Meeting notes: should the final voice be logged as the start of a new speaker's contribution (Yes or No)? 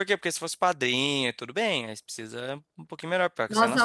Yes